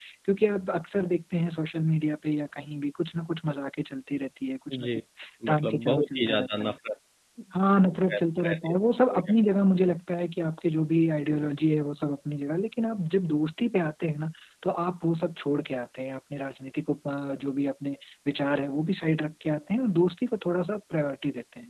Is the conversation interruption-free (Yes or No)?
No